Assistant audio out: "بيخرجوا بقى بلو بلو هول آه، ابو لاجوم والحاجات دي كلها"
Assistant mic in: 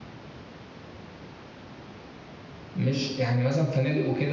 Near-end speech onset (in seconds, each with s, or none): 2.8 s